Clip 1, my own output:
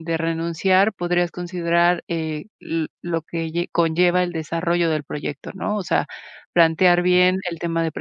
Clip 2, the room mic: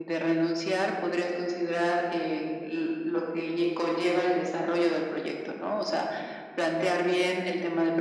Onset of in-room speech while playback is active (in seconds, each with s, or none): none